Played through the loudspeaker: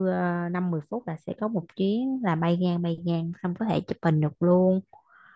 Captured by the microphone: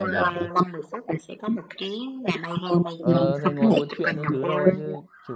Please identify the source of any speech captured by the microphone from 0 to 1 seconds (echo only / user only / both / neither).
both